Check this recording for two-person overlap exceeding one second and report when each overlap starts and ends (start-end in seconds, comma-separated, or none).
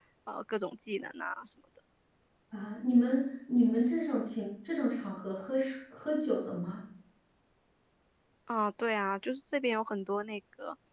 none